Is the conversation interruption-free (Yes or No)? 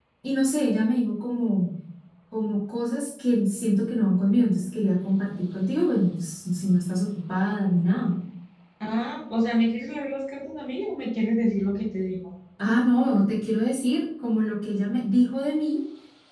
Yes